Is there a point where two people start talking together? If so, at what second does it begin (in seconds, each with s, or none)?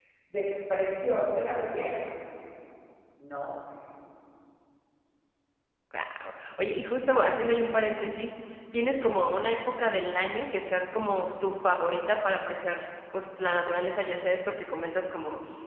none